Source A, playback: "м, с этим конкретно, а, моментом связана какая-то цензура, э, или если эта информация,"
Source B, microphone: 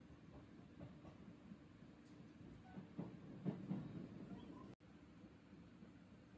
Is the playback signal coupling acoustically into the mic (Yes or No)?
No